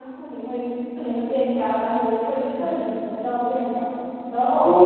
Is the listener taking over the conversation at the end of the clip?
No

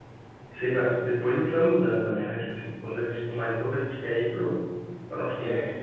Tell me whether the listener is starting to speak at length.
No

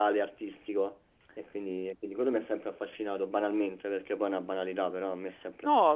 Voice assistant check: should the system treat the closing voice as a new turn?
Yes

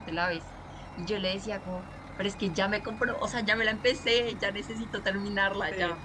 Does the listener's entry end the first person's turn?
No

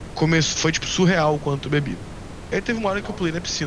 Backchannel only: Yes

